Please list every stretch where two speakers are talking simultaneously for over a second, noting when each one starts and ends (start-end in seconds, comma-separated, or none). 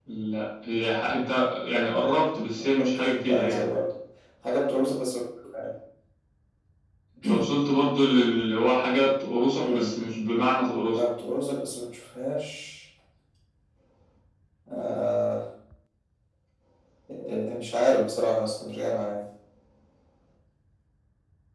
2.5-3.8